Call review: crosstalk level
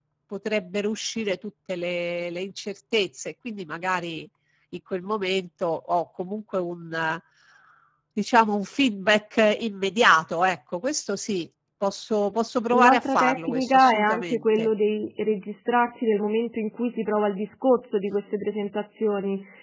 present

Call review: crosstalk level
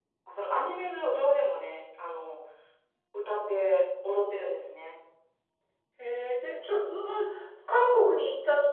none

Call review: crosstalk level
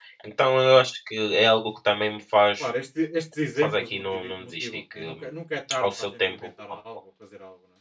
present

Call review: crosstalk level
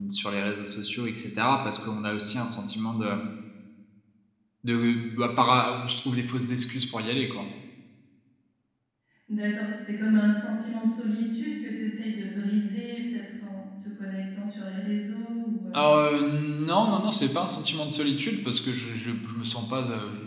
none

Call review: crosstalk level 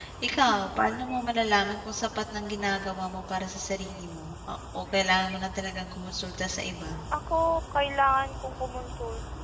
none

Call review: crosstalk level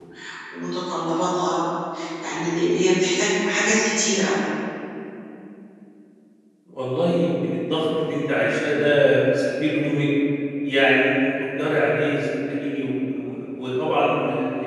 none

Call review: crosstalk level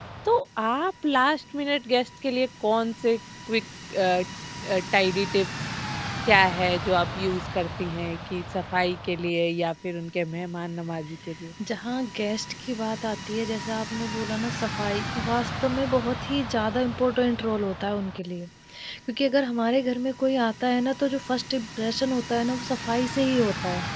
none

